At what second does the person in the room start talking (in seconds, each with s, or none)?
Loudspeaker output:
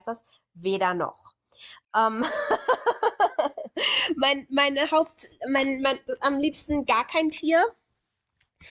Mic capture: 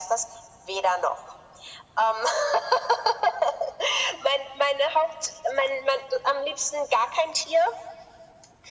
none